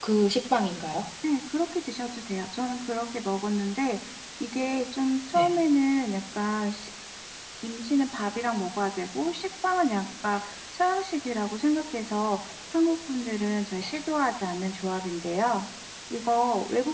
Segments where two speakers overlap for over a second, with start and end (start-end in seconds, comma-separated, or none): none